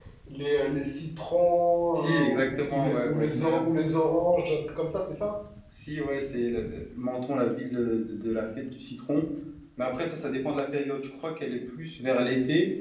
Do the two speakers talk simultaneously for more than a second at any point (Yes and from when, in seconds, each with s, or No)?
Yes, from 1.9 s